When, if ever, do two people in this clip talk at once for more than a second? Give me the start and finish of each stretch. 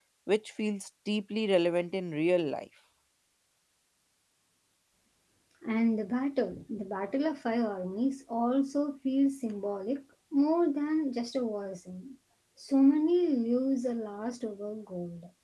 none

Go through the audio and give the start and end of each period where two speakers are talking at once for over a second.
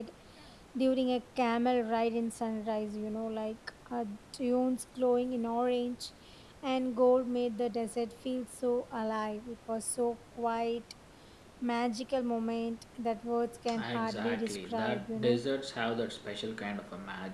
13.8-15.4

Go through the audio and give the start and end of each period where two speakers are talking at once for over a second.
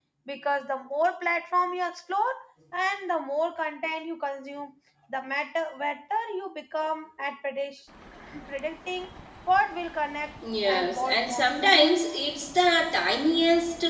10.6-11.9

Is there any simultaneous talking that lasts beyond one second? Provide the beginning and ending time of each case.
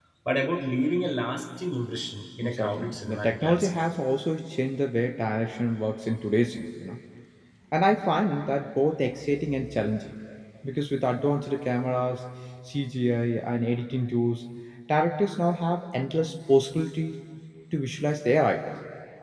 2.4-3.7

